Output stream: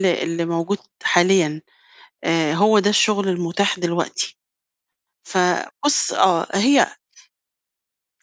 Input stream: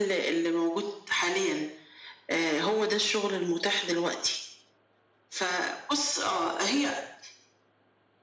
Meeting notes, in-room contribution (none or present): none